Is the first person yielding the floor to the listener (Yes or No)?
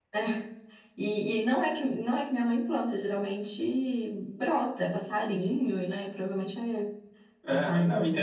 Yes